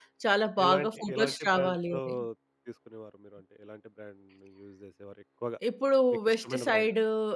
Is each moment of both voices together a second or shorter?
No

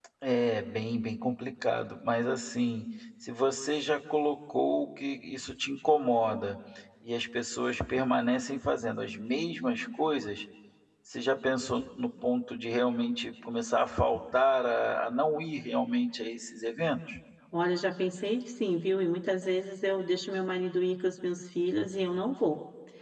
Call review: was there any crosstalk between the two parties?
No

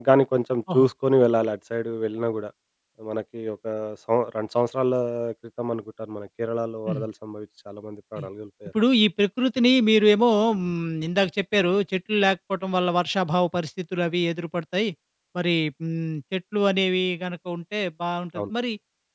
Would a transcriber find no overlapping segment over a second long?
Yes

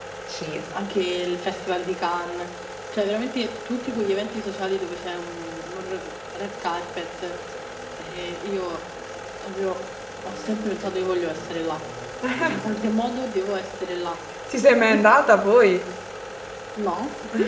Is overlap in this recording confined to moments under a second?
Yes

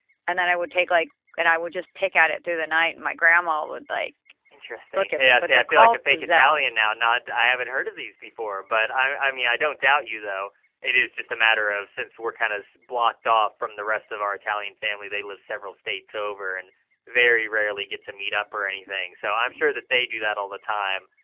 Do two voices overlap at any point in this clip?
Yes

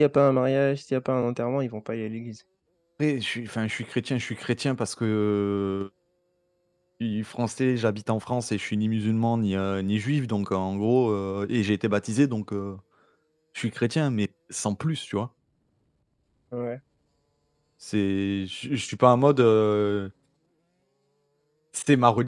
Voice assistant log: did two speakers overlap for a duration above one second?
No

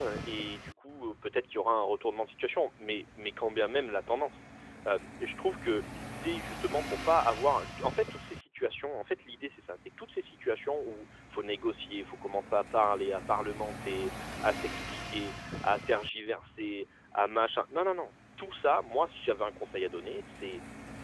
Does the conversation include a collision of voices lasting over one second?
No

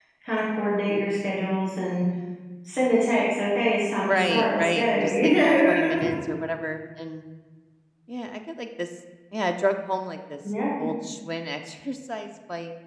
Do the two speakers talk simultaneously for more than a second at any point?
Yes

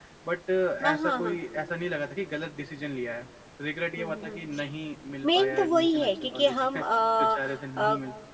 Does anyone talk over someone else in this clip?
Yes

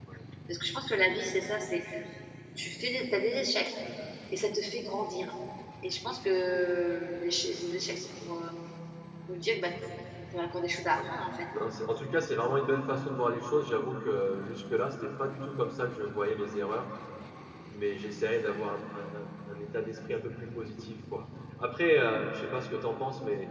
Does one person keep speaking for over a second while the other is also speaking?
No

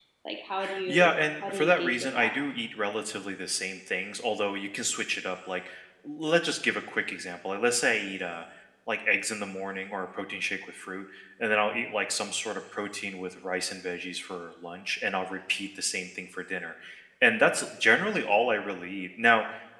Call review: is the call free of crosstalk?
No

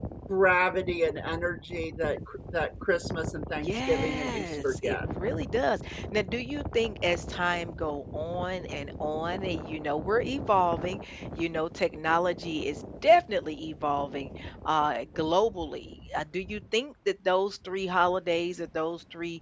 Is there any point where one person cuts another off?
Yes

